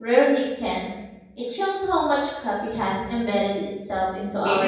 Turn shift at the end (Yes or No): Yes